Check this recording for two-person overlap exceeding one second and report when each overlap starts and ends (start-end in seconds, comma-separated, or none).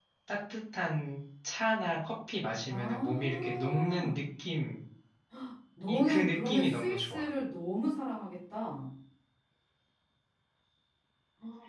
2.7-4.2, 5.9-7.3